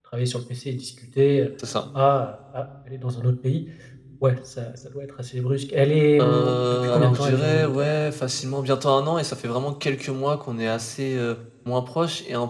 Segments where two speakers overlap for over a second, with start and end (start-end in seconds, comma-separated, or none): 6.2-7.9